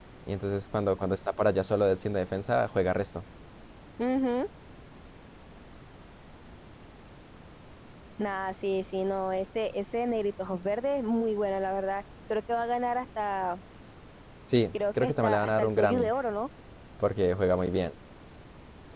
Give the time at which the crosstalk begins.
15 s

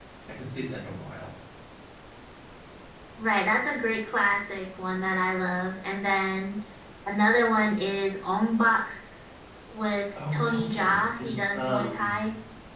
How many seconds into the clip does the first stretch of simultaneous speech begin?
10 s

